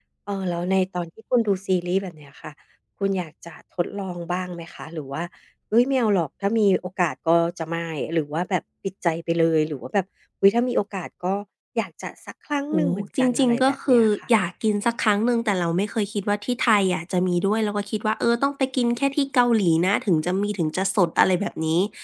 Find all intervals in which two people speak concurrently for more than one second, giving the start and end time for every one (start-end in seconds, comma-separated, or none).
12.7-14.1